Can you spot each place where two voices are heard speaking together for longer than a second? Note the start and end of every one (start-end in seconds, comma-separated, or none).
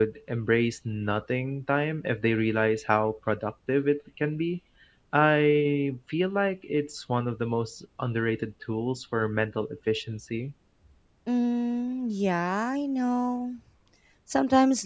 none